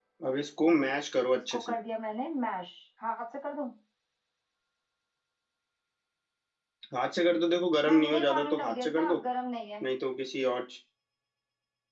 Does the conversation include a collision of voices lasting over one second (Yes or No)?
Yes